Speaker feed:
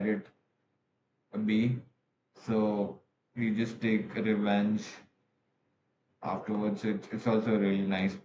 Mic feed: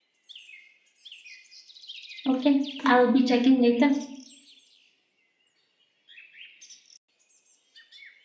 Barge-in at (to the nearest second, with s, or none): 2 s